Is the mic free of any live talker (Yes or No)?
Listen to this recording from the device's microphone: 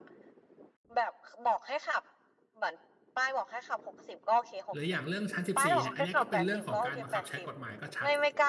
No